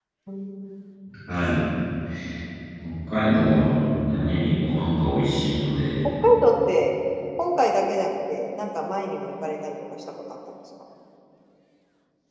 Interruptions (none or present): none